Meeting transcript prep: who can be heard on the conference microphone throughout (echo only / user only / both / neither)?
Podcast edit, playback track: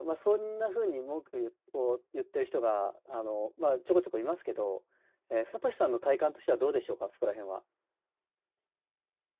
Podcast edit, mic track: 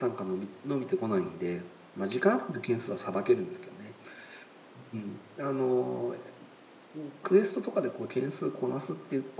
user only